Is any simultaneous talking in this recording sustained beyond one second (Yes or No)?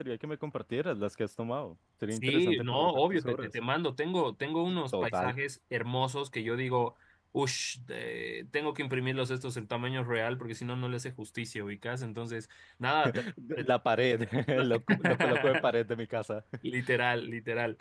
Yes